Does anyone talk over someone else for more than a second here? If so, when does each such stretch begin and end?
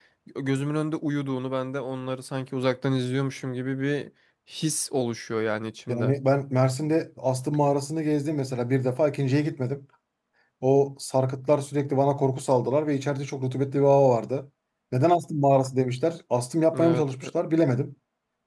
none

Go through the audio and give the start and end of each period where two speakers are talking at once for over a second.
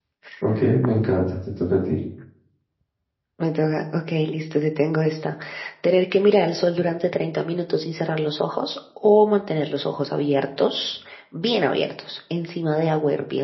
none

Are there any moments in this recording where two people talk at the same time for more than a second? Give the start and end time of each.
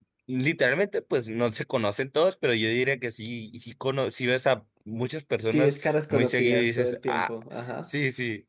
5.4-7.3

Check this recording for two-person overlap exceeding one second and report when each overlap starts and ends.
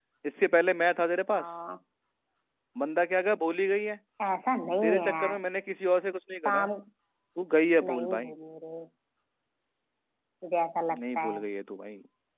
none

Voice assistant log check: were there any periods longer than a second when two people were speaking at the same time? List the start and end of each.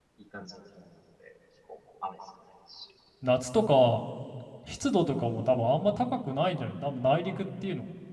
none

